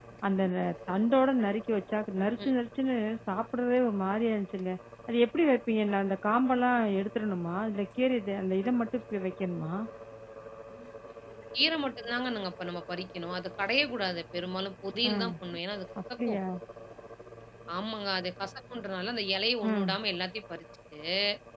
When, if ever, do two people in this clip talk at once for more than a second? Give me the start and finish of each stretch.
none

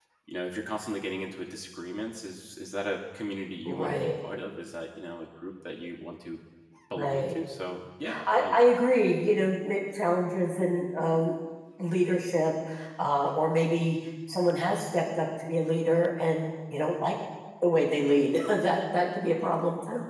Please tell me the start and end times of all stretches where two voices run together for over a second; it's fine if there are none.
none

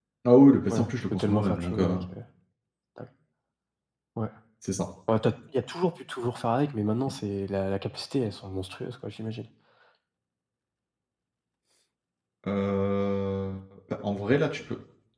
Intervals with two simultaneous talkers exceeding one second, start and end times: 0.7-2.0

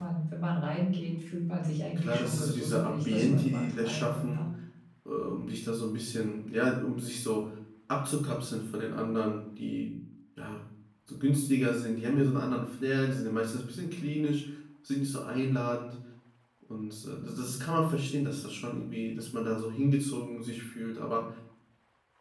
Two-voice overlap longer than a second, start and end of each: 2.0-4.5

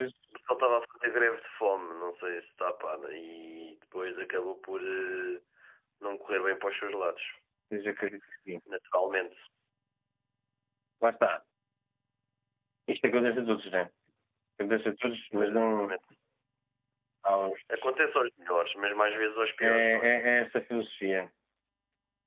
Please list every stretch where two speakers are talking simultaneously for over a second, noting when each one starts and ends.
none

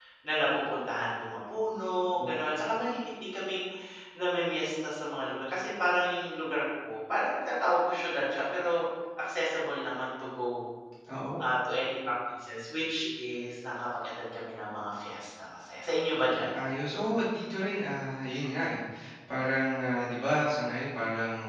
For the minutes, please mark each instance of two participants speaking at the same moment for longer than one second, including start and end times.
none

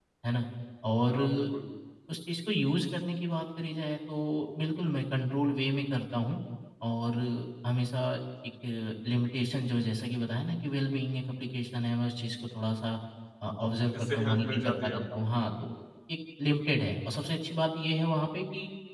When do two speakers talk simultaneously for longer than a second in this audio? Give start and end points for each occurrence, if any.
14.0-15.3

